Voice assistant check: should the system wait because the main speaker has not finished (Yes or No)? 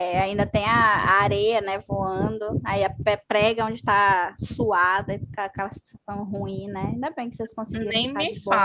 No